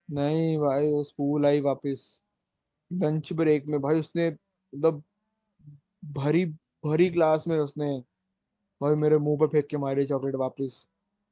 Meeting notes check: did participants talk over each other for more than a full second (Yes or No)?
No